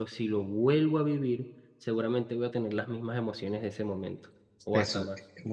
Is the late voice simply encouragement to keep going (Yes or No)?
No